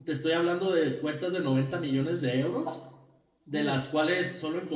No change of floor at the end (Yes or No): Yes